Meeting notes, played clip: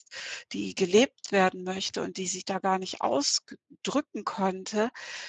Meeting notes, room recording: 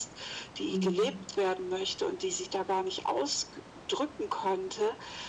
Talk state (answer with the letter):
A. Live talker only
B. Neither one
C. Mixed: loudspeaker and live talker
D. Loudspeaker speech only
C